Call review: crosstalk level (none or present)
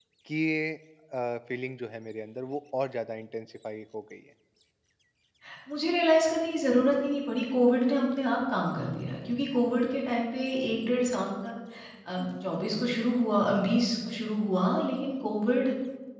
none